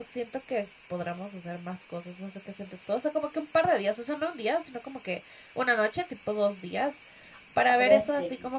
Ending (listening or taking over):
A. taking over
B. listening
B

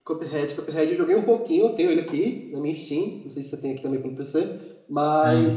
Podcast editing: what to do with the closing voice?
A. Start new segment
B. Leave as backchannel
B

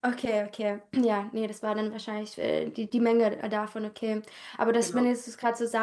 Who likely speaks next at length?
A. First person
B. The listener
A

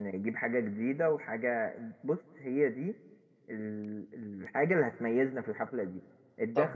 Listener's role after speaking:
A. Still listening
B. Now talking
A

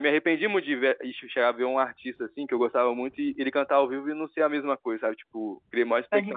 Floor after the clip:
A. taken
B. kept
B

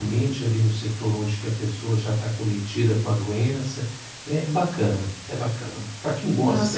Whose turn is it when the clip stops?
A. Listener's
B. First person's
A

